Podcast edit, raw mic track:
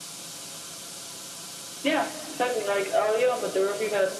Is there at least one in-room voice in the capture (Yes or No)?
No